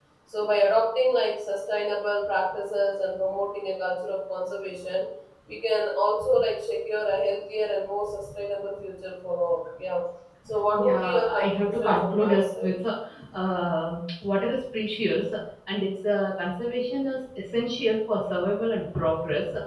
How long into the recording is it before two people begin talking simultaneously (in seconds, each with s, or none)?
10.9 s